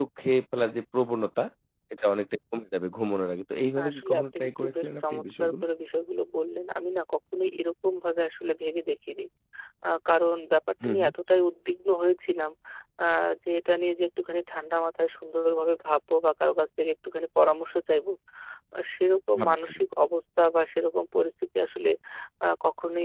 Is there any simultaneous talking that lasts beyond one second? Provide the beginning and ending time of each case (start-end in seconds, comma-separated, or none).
3.8-5.6